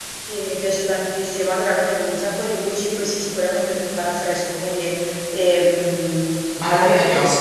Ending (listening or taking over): taking over